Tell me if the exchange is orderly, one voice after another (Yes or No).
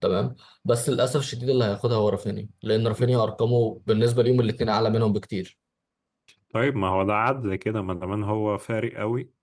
Yes